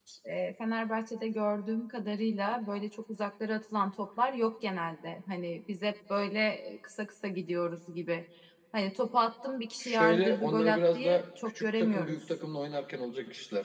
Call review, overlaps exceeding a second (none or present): present